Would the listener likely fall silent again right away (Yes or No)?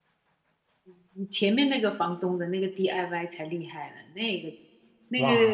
No